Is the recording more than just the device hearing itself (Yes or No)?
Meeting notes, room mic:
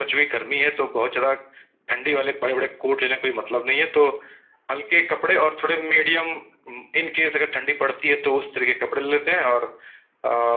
No